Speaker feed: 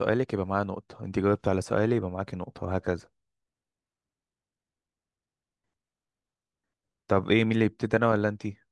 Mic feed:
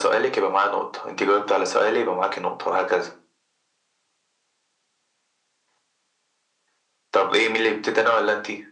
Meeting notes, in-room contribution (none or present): none